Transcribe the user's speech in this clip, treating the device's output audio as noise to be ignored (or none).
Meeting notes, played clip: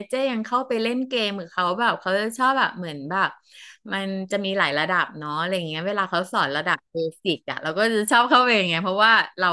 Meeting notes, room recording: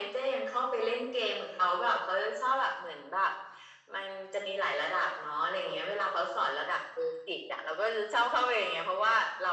none